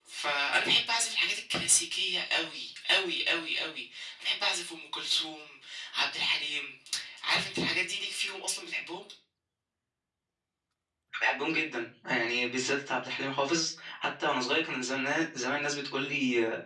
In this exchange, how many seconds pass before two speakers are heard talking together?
none

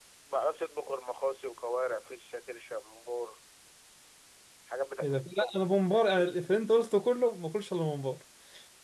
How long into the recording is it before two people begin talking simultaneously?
5 s

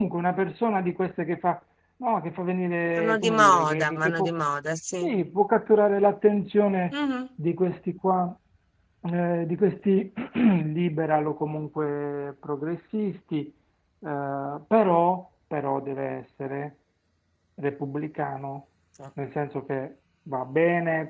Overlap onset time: 3 s

